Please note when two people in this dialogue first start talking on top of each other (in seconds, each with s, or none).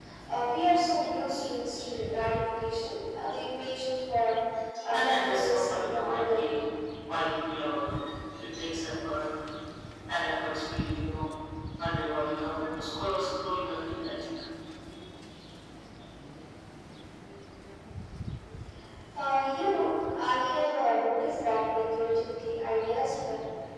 4.9 s